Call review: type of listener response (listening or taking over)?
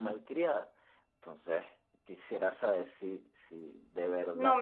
taking over